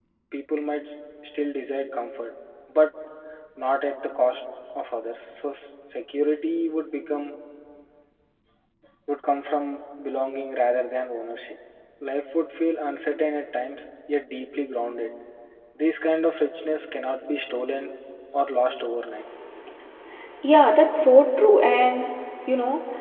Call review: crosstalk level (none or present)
none